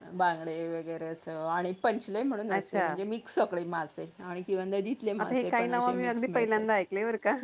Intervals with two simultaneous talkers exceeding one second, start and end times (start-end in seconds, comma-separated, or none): 5.2-6.7